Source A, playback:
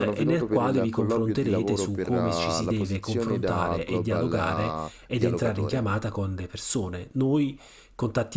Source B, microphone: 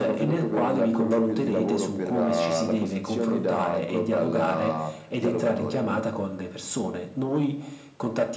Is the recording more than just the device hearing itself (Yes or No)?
No